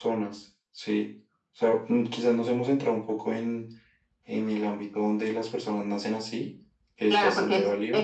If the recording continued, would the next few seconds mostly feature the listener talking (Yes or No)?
Yes